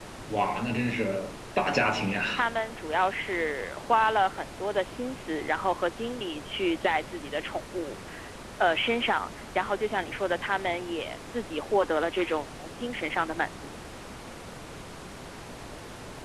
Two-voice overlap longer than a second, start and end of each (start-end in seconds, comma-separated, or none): none